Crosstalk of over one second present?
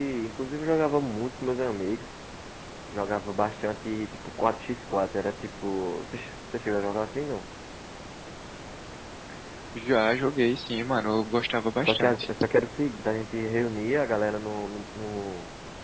No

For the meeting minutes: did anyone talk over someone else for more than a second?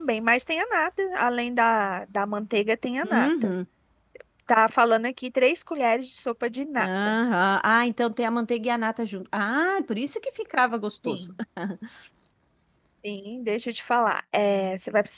No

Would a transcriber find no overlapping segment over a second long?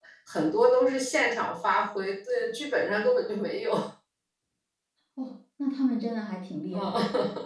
Yes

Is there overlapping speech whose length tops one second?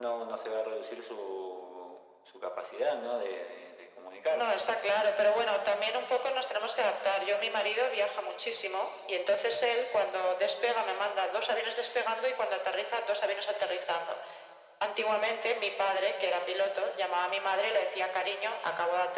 No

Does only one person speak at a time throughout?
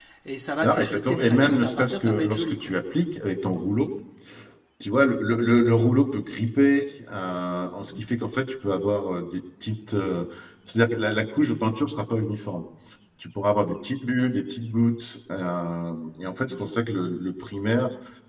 No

